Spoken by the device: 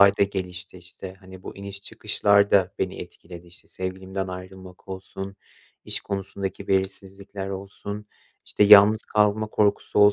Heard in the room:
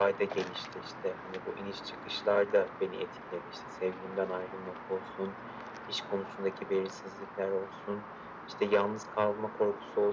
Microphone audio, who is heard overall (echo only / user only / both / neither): echo only